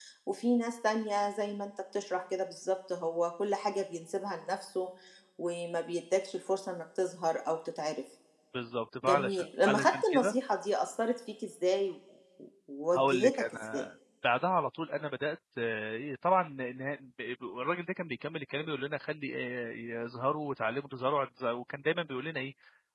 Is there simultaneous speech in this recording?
Yes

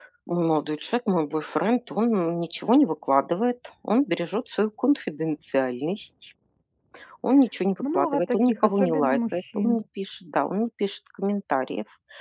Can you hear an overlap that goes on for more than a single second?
Yes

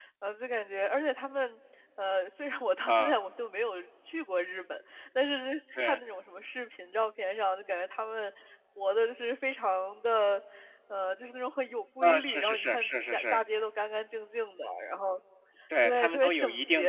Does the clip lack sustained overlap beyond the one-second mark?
No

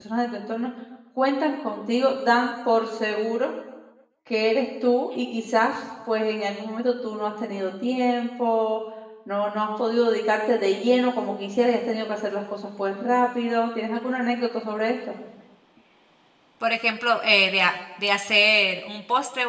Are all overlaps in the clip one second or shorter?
Yes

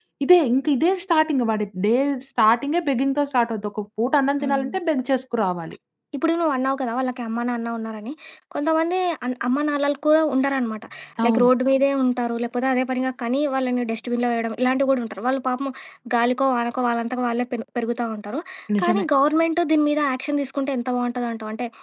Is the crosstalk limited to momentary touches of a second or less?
Yes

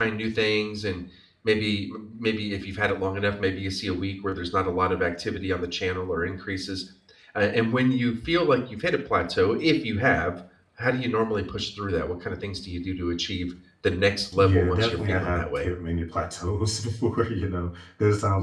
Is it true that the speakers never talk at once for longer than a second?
No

